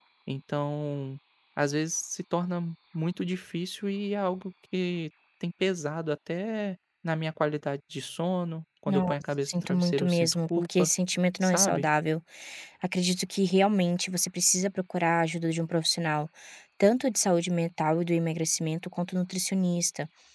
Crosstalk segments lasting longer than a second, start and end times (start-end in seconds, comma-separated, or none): 8.9-10.9